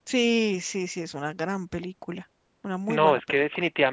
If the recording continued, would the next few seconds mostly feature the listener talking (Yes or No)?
Yes